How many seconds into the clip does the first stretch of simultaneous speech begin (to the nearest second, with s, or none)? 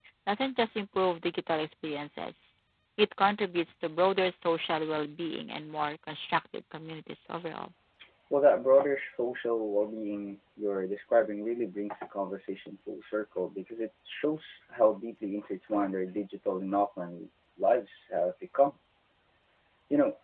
none